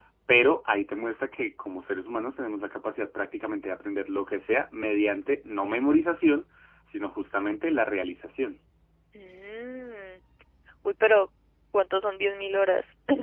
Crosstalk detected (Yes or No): No